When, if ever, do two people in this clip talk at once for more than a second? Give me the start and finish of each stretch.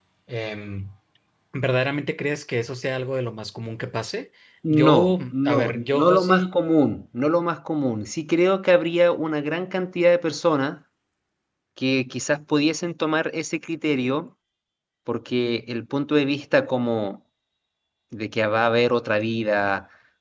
4.7-6.5

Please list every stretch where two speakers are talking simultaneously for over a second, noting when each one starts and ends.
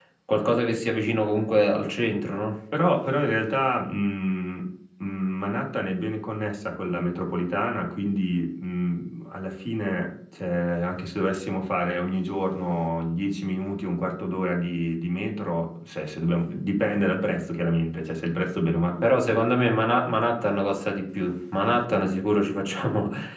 none

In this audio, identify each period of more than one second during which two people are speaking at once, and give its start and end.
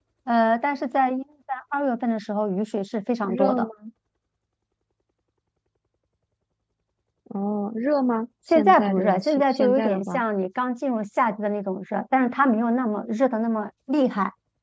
8.5-10.2

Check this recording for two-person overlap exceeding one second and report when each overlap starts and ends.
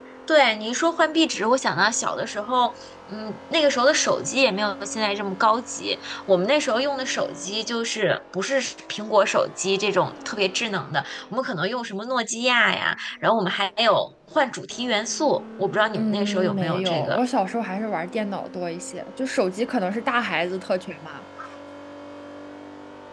16.0-17.2

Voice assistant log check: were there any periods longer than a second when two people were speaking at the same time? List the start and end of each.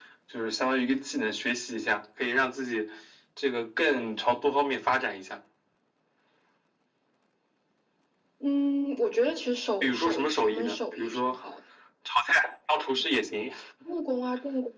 9.8-11.4

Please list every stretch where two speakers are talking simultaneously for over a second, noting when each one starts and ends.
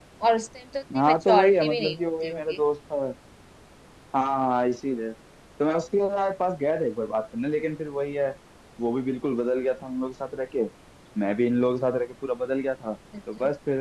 0.9-2.6

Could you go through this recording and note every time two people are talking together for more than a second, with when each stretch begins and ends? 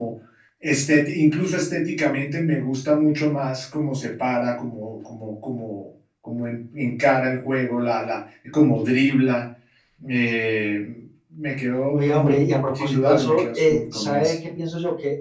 11.9-14.4

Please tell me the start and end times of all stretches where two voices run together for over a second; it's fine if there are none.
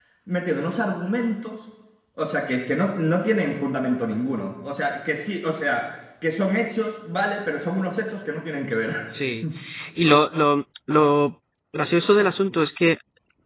none

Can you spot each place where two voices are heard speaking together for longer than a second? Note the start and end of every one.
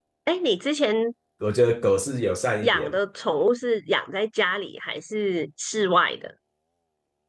none

